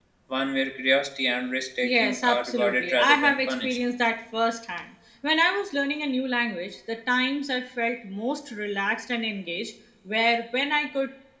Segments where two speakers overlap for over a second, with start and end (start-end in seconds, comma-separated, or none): 1.8-3.8